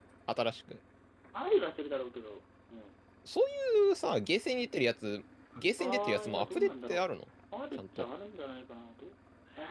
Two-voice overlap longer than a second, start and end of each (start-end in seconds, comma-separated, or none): 5.8-7.0